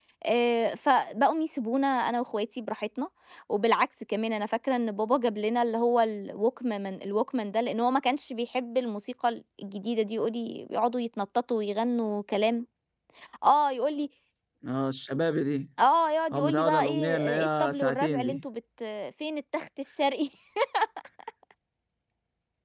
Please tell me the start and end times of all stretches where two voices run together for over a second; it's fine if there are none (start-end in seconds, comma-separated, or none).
16.3-18.4